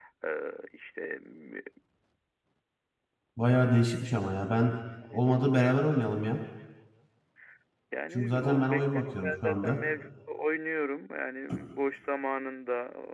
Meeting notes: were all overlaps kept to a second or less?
No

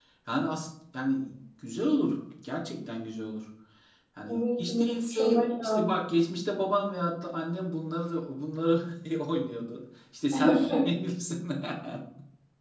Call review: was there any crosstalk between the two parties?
Yes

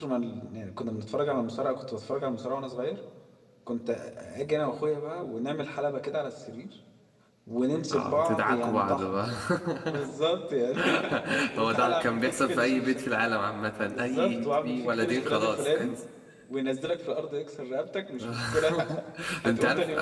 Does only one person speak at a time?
No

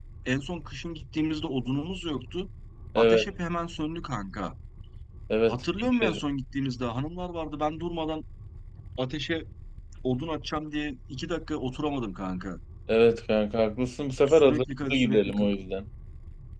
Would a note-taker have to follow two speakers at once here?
Yes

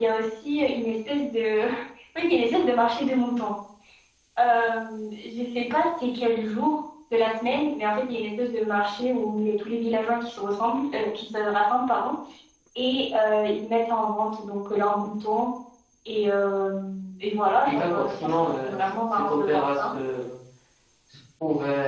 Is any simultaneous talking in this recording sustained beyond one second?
Yes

